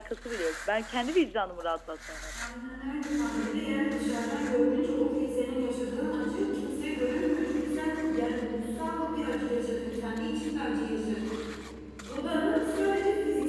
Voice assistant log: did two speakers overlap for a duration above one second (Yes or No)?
No